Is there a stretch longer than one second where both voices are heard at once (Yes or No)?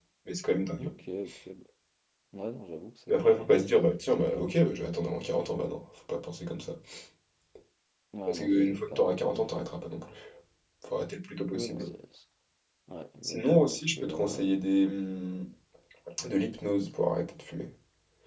Yes